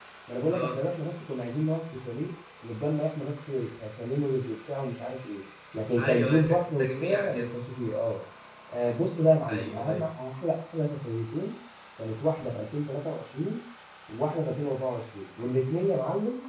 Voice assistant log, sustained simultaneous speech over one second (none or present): present